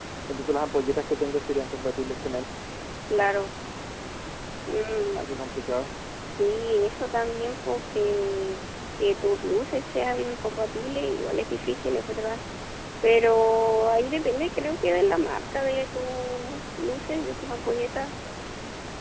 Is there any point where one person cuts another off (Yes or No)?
No